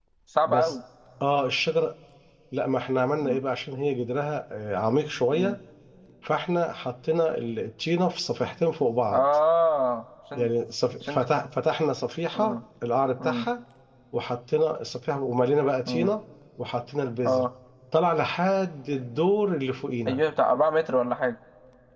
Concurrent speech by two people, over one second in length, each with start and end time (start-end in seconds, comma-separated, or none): none